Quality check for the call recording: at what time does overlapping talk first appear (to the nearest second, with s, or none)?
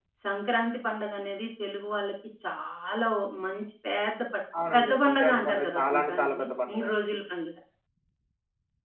5 s